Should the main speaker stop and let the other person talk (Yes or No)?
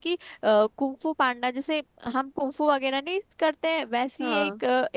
No